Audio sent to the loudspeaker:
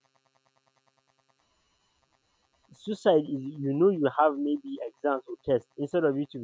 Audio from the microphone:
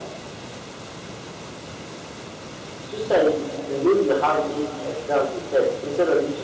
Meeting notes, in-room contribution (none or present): none